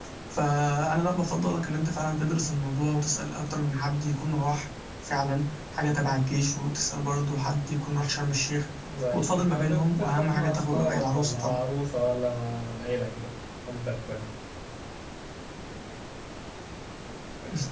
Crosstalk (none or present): present